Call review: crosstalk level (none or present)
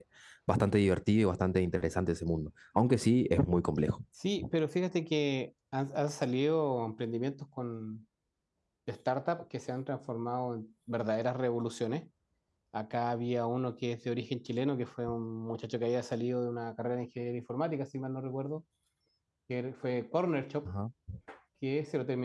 none